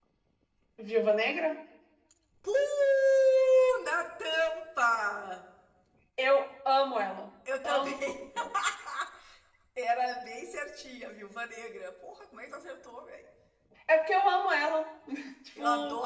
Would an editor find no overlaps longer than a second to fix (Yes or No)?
Yes